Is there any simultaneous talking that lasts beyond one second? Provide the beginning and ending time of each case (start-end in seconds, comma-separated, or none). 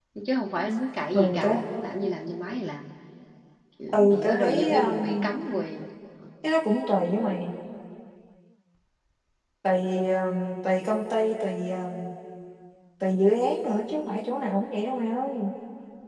3.9-5.3